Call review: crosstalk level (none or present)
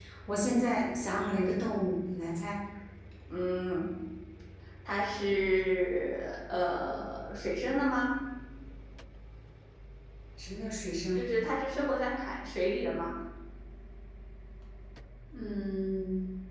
none